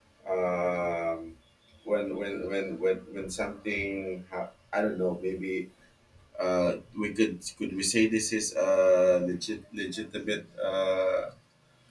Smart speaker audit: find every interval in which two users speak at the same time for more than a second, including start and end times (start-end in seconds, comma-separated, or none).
none